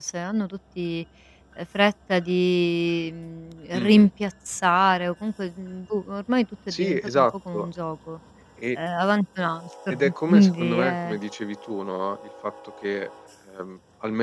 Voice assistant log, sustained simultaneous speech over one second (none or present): present